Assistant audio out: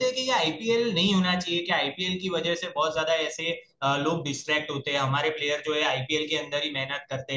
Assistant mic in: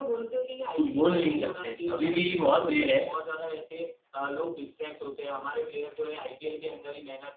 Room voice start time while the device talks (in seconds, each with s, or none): 0.8 s